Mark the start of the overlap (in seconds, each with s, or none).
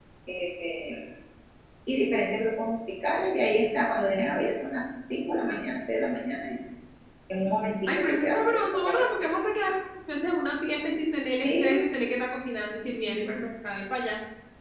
7.9 s